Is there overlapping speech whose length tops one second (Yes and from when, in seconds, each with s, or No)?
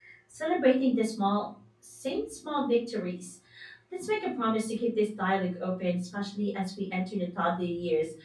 No